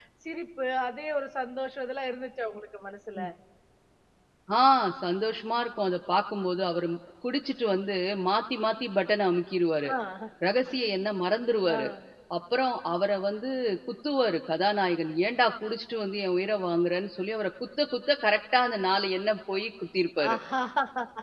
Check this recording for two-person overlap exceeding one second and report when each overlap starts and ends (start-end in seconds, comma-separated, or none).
none